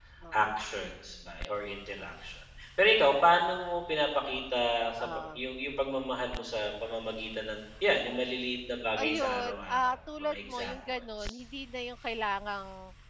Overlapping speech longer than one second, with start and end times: 9.0-11.3

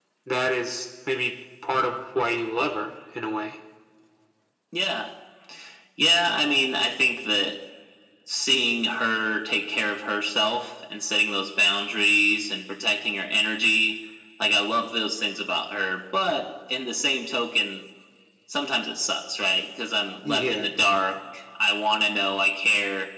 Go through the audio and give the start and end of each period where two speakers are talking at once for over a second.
none

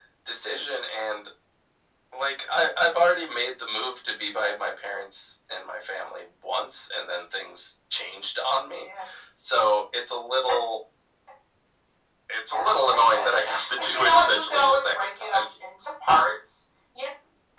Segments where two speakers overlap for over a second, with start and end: 12.5-15.4

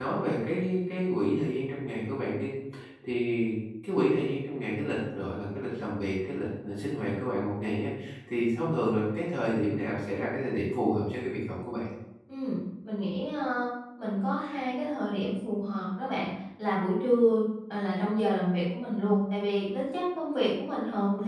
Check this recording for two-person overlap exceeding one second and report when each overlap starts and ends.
none

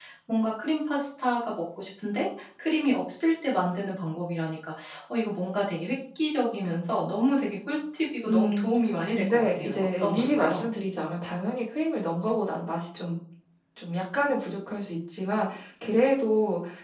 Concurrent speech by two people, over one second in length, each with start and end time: 9.1-10.7

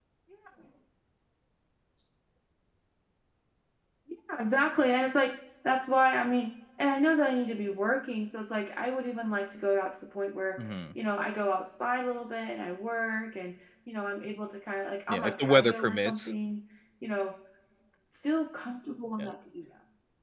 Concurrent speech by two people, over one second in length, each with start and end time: 15.1-16.3

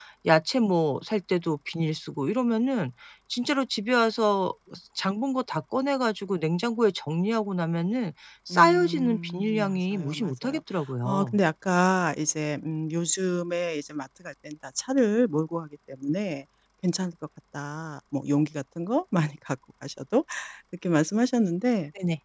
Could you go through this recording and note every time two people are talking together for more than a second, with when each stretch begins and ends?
8.5-10.6

